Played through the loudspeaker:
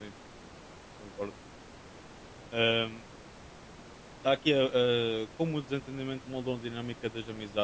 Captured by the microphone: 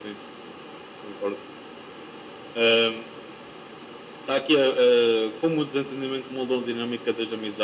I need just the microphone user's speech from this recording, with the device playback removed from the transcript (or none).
none